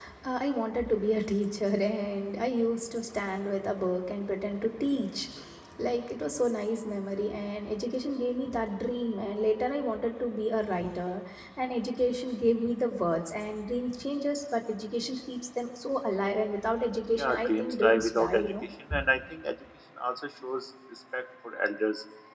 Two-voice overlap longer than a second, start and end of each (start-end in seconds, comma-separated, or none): 17.1-18.5